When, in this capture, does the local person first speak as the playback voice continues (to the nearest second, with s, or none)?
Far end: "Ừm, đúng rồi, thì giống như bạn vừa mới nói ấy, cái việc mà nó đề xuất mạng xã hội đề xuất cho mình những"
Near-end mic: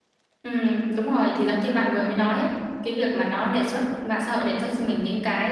none